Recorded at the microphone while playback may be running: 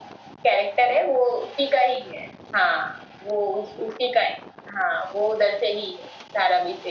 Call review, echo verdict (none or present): present